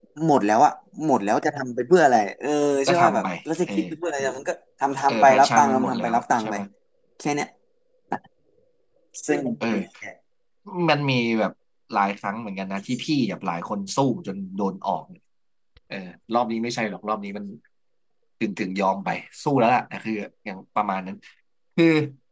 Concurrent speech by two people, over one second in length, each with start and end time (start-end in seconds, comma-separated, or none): 5.1-6.5